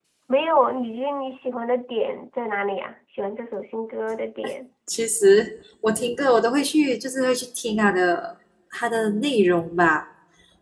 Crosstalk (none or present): none